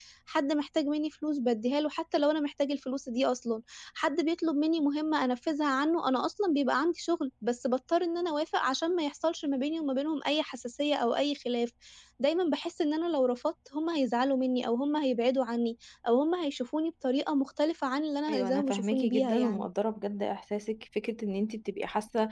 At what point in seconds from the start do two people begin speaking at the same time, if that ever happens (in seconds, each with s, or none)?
18.3 s